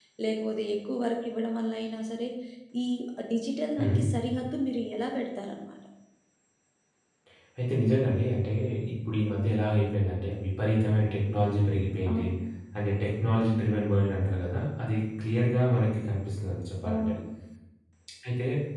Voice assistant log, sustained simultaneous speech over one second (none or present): none